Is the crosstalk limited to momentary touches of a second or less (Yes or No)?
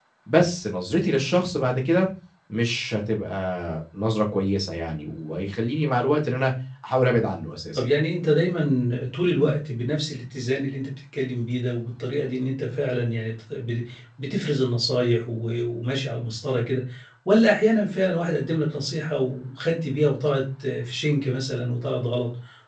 Yes